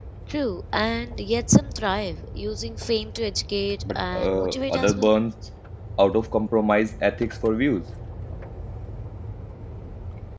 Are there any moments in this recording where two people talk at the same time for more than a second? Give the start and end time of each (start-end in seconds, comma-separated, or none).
3.9-5.1